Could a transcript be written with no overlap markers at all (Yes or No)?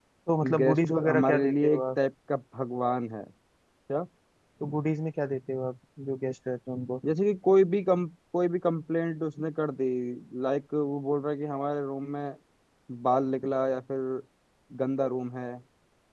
No